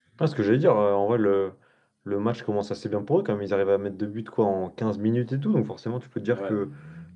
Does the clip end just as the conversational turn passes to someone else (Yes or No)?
No